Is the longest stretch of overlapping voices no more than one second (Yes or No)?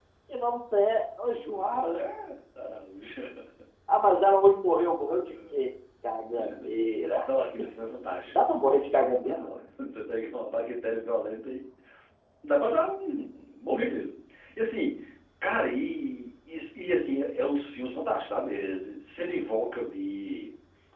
Yes